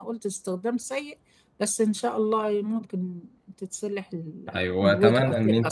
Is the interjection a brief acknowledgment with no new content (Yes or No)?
No